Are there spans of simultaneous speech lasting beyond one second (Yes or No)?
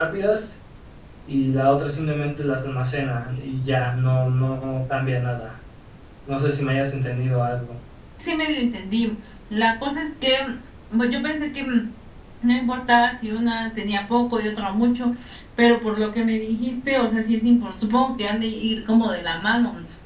No